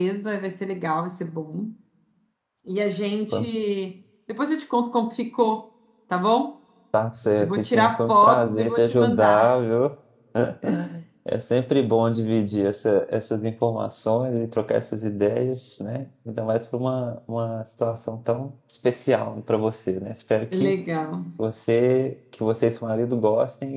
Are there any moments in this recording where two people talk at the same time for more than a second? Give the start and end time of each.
7.4-9.5

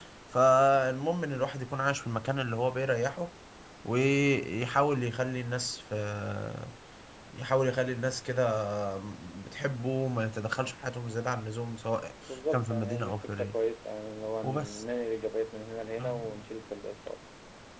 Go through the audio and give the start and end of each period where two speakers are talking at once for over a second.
12.3-13.6

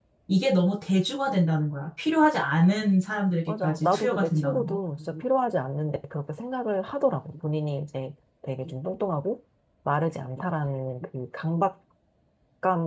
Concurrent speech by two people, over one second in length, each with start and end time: 3.5-4.8

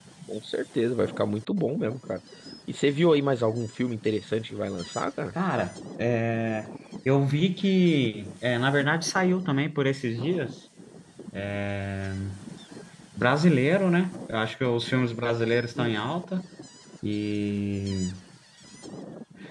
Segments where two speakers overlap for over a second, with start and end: none

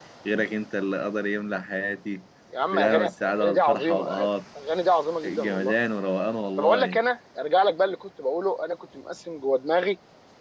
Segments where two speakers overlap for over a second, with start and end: 2.7-4.0

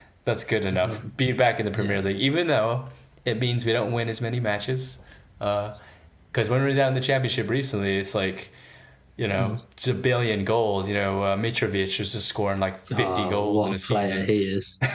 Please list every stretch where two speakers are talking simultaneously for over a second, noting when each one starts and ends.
13.0-14.3

